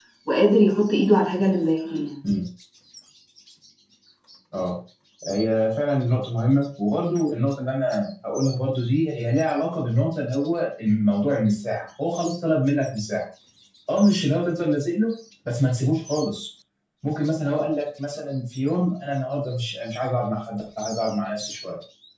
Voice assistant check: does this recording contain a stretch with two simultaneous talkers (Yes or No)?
No